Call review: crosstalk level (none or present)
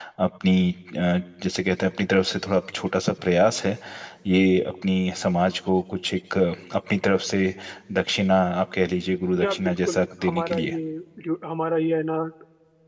present